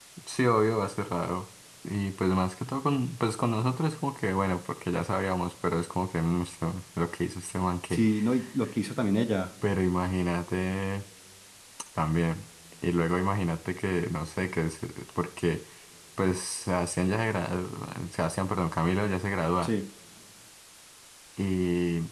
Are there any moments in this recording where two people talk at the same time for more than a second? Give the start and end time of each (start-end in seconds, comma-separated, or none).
none